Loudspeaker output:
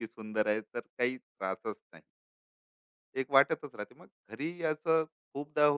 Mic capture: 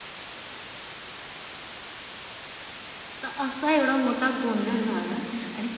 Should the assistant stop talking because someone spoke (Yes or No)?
Yes